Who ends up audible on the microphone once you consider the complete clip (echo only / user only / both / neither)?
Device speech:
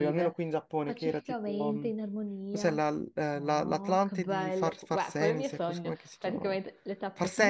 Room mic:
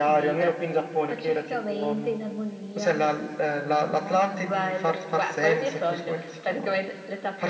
echo only